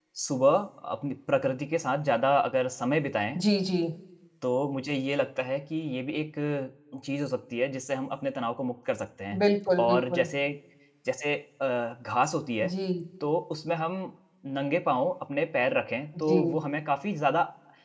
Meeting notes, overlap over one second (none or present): none